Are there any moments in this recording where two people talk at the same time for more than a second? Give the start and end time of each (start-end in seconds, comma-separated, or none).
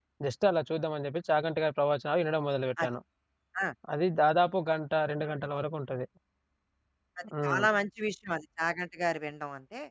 none